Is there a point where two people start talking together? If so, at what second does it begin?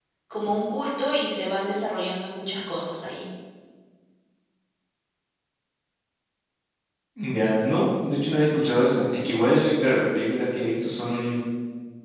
none

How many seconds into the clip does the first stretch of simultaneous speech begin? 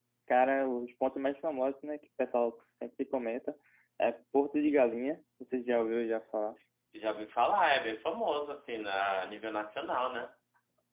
none

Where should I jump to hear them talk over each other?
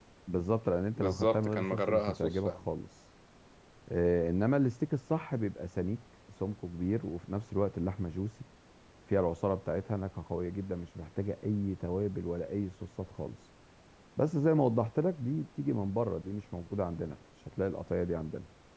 1.0 s

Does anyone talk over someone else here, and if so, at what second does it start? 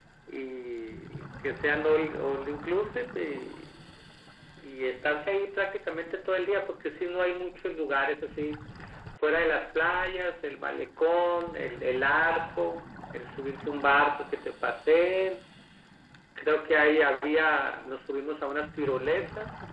none

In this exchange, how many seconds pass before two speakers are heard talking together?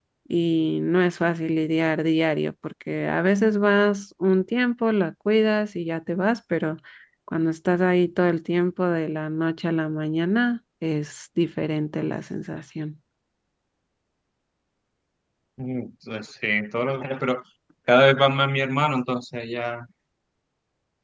none

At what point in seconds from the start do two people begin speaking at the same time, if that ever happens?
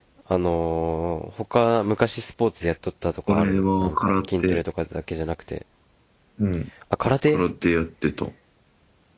3.3 s

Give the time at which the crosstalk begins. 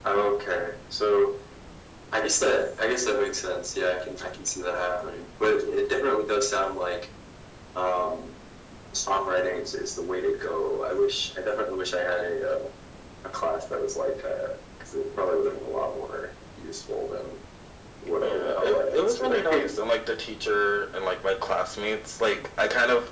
18.2 s

